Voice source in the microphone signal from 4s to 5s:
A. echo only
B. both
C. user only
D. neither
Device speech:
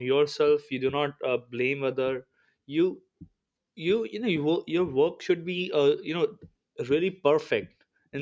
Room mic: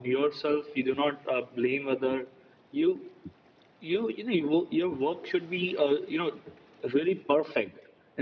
A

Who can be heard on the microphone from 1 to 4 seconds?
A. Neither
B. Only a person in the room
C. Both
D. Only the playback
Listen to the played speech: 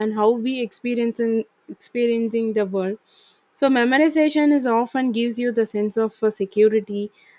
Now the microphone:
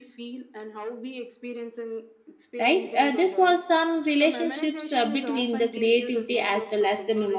C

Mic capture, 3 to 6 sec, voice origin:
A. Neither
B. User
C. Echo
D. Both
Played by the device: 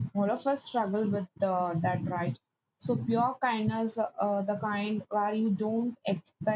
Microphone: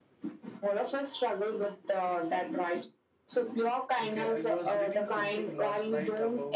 D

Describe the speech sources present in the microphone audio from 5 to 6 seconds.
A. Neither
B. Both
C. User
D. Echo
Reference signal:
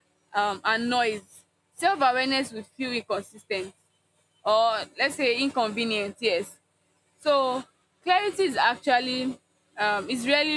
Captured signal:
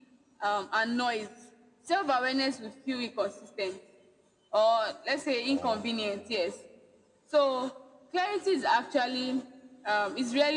B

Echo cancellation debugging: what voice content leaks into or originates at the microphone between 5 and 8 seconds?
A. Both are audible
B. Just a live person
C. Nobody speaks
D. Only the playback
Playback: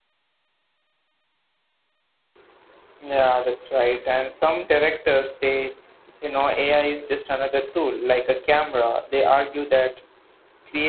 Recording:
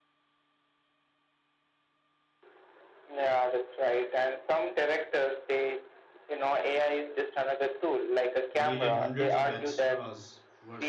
D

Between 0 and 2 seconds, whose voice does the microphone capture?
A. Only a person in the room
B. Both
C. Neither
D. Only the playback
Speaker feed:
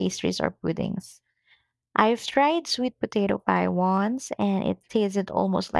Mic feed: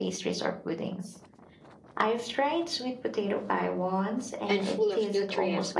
D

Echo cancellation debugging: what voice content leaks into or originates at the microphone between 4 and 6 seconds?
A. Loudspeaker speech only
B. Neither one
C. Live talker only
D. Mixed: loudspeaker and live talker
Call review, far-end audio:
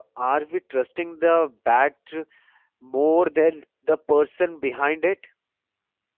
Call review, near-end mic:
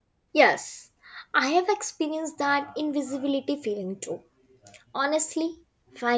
C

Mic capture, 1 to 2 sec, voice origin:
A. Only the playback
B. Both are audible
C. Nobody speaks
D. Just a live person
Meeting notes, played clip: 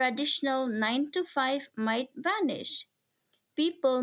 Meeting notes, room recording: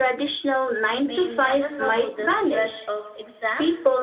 B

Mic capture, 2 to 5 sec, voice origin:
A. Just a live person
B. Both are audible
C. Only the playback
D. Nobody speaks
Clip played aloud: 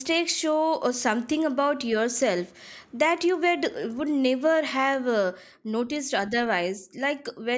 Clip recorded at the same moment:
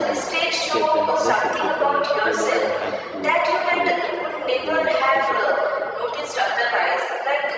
B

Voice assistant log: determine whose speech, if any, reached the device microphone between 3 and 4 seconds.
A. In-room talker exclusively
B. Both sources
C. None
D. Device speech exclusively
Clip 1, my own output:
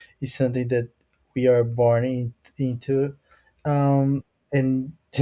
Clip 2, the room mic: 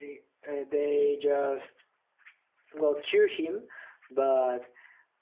A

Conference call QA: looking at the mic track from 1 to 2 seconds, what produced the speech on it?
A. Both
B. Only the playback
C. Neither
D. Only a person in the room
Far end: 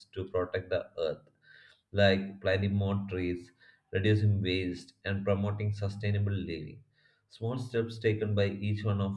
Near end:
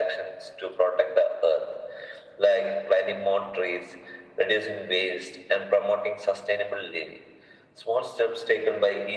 B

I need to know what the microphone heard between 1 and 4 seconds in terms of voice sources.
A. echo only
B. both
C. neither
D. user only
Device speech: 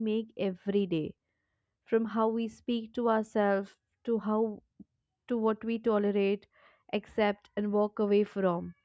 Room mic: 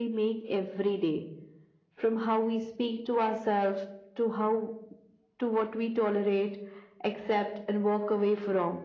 A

